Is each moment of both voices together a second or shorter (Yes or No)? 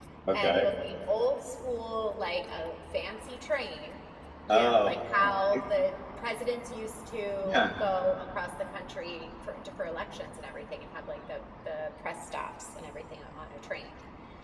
Yes